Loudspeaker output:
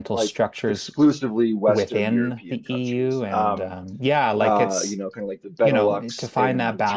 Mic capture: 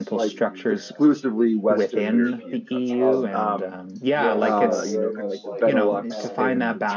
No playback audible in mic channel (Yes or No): No